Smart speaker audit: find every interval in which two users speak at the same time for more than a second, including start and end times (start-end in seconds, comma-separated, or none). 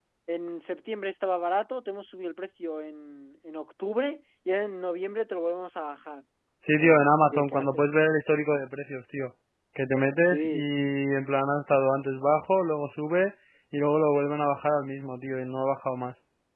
6.7-7.9